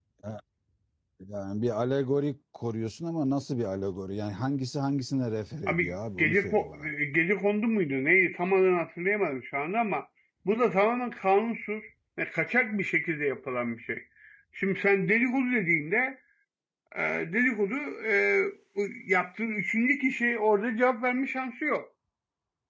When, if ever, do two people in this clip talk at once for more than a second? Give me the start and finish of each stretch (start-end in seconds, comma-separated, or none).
5.7-6.9